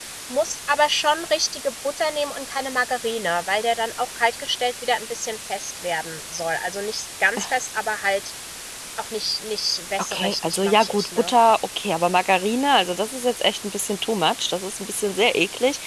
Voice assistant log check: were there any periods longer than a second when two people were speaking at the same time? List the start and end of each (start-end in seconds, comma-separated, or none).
10.0-11.3